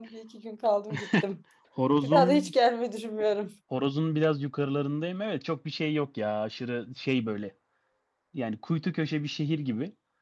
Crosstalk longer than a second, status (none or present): none